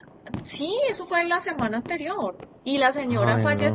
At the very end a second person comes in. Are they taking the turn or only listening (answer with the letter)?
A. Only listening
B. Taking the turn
A